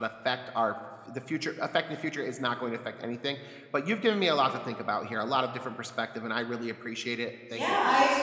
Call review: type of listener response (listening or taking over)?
taking over